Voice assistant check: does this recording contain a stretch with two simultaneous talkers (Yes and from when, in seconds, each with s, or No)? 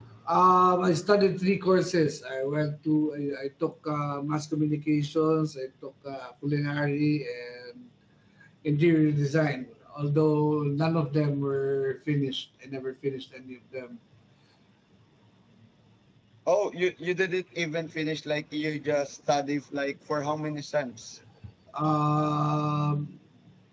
No